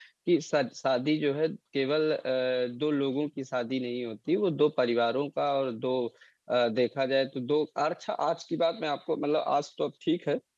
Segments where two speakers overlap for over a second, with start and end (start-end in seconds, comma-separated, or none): none